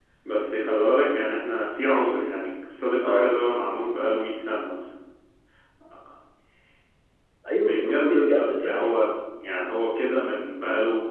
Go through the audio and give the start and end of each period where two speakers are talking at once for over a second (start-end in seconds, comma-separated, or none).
7.6-8.9